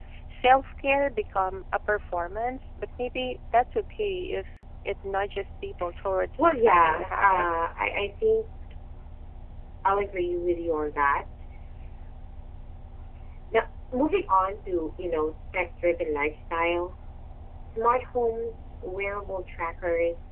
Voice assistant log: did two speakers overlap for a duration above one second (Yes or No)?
Yes